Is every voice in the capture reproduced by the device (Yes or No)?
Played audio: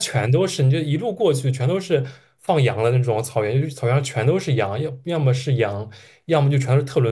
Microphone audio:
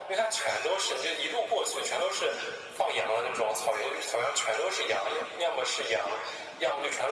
Yes